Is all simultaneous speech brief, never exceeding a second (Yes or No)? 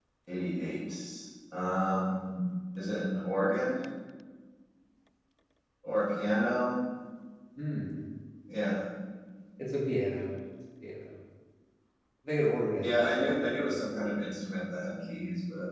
No